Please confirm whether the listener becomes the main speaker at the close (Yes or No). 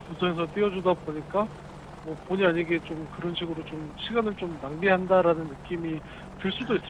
Yes